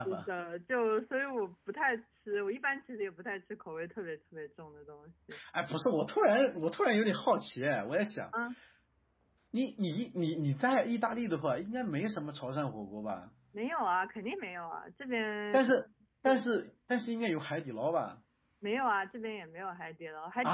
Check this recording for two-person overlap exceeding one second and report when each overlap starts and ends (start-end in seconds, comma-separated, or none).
none